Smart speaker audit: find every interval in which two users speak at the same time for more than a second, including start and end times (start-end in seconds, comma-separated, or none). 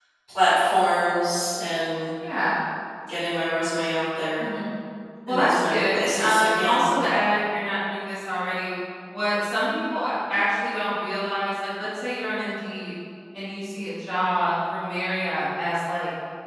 5.3-6.9